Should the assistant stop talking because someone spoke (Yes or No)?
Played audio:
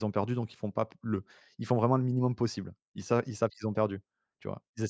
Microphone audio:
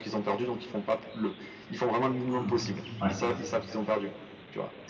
Yes